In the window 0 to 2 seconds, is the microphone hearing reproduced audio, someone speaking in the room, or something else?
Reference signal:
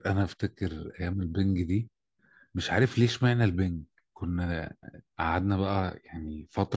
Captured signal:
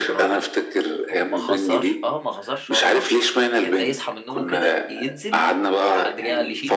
both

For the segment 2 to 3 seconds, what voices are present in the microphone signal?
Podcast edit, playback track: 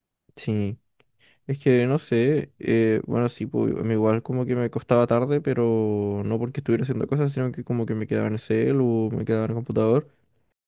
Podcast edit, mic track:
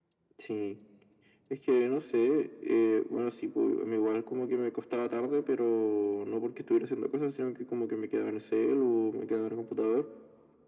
echo only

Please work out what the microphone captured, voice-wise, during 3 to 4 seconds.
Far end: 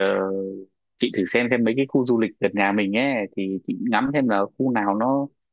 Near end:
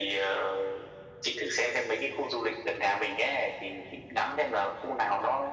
echo only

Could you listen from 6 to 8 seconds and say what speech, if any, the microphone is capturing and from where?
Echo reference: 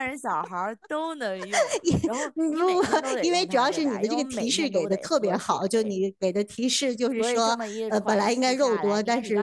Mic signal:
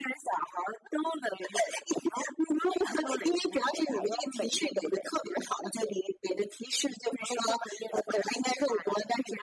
echo only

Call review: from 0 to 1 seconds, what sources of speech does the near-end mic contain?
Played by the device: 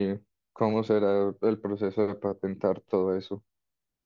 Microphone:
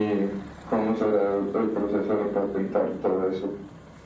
echo only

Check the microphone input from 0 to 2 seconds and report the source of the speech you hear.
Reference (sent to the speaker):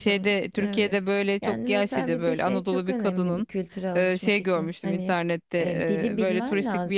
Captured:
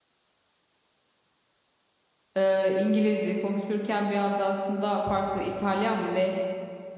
neither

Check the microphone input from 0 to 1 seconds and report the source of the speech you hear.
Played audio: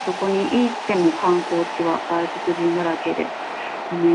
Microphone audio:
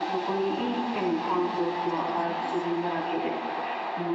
echo only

